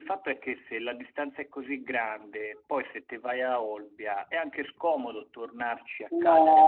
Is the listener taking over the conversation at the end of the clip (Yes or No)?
Yes